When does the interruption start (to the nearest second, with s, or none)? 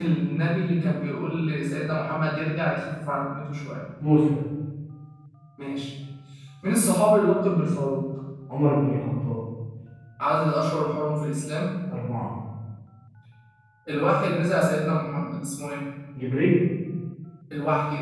none